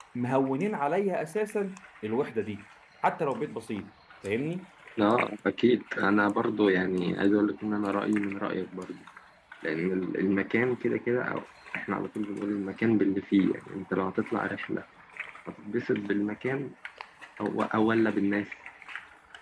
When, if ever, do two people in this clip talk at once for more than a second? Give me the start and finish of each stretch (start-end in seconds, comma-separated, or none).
none